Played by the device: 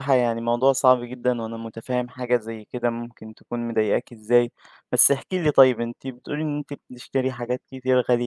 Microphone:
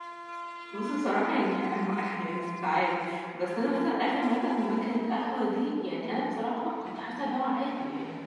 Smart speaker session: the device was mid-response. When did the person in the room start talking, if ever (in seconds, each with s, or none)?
0.7 s